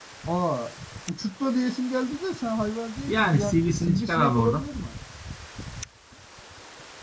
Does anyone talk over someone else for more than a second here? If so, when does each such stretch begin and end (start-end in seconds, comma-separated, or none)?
3.1-4.6